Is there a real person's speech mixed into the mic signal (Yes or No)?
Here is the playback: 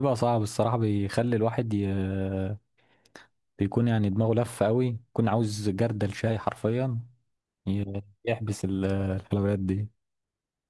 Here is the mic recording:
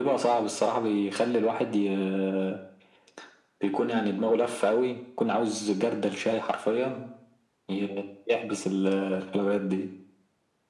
No